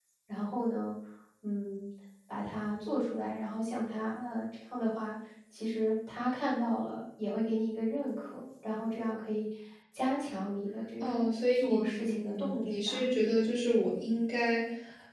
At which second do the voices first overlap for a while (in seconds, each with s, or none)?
11.0 s